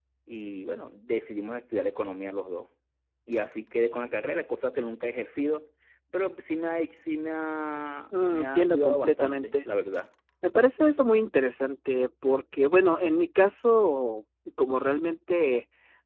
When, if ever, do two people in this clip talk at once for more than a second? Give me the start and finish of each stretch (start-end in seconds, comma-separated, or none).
8.3-9.7